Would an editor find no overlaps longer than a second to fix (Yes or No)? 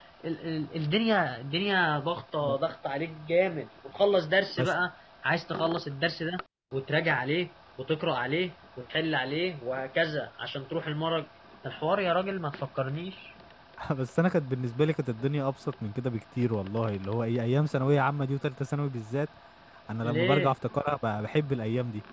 Yes